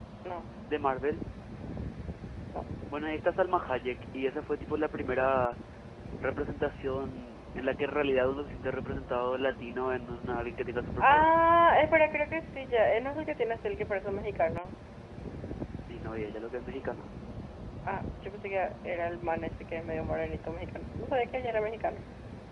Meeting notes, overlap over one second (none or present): none